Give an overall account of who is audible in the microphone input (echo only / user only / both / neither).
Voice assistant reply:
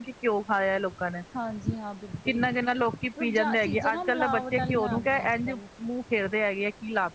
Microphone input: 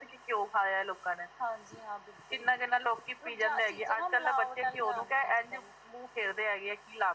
echo only